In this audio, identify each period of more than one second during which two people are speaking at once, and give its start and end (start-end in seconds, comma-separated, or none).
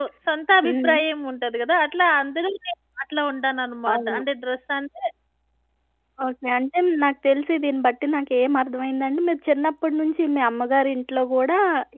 none